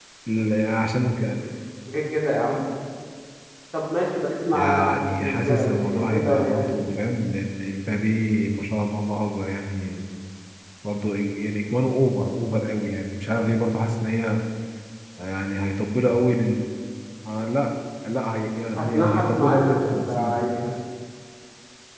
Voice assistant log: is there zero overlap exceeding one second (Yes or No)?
No